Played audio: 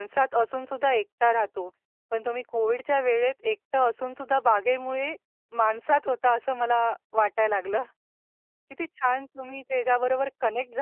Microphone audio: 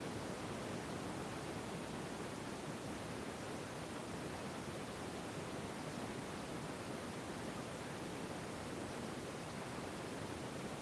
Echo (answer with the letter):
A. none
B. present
A